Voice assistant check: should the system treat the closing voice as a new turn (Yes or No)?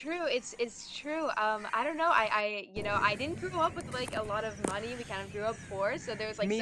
No